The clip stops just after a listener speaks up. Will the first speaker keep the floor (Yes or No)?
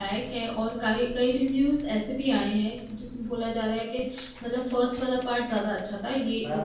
No